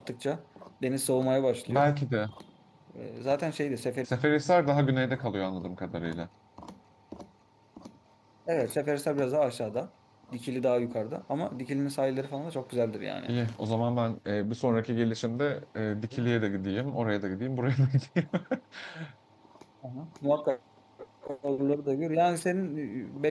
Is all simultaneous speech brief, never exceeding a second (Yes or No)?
Yes